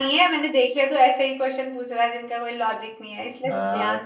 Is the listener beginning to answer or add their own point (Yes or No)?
Yes